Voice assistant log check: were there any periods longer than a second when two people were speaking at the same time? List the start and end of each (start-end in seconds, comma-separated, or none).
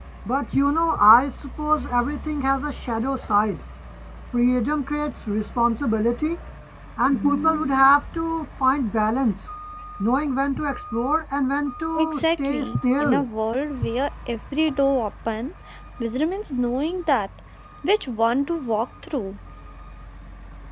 12.0-13.2